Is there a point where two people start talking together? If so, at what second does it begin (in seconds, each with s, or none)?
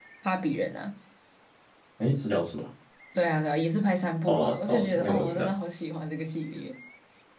4.3 s